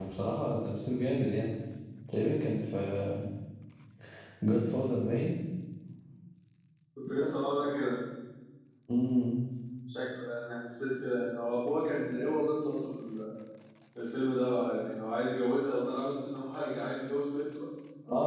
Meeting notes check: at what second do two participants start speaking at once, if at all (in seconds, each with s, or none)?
none